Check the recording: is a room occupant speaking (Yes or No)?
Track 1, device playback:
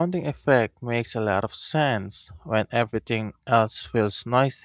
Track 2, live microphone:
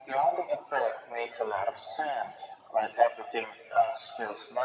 No